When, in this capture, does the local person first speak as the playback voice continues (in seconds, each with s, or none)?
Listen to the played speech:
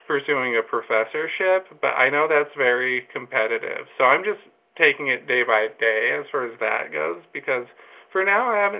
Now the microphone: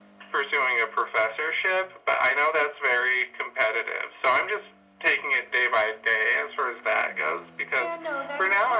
7.7 s